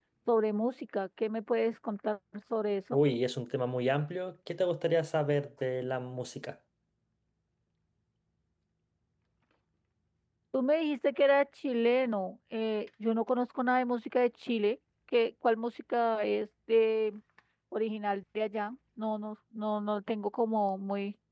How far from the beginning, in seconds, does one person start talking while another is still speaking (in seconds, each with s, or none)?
none